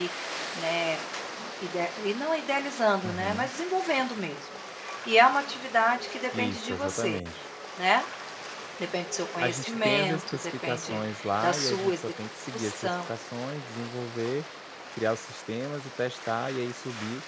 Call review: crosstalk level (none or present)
present